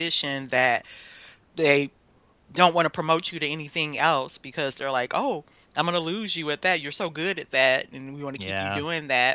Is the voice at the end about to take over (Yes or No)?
No